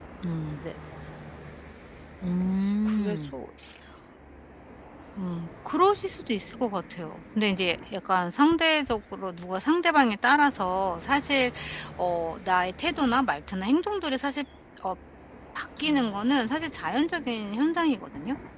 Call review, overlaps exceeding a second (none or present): none